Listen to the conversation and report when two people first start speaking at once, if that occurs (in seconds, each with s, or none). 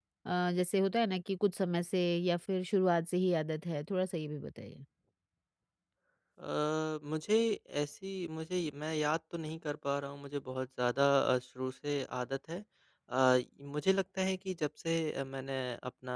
none